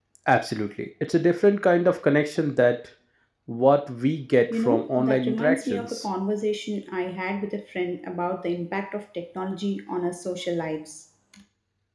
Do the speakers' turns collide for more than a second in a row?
Yes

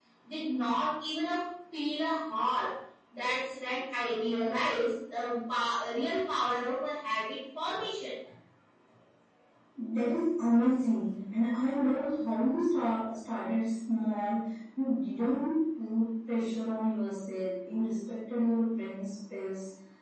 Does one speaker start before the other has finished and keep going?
No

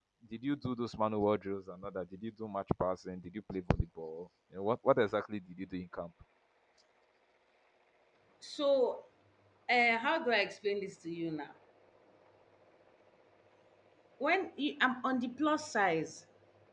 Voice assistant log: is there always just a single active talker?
Yes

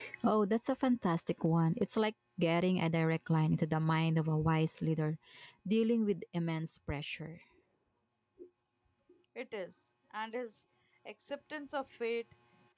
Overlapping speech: No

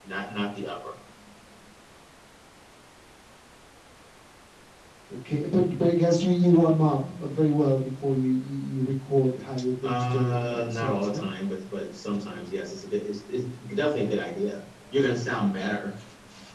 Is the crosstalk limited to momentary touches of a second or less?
No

